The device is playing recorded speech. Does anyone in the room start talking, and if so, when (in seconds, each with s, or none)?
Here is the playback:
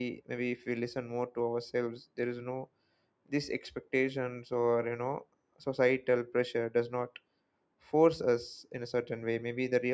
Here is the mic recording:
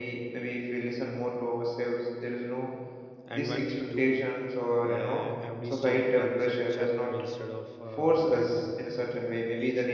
3.3 s